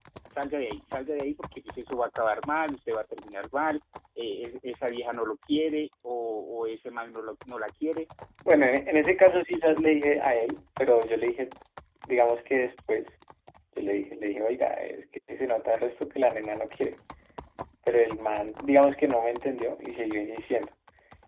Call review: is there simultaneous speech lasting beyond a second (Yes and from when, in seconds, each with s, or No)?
No